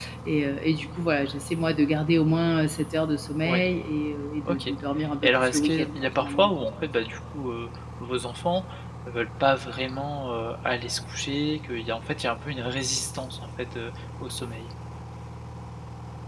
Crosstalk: present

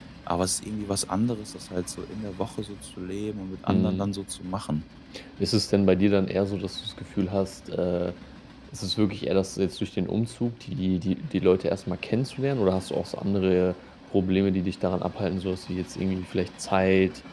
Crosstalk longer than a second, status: none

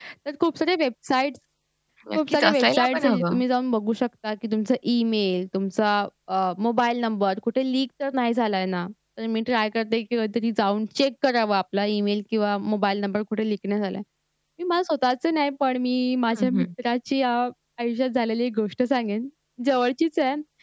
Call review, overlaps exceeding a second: present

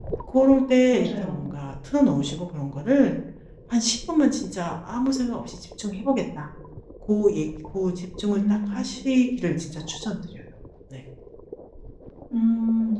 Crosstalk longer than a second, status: none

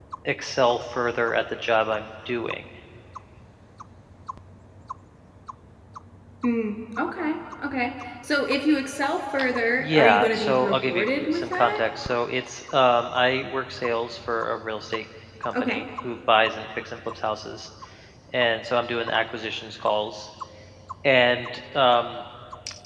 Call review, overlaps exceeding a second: present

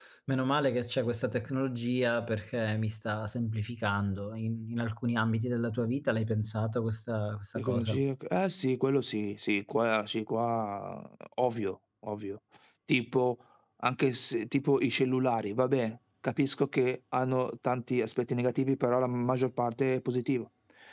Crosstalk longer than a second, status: none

